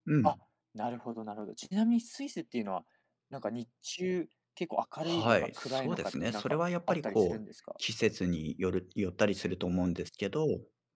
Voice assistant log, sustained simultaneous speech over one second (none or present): present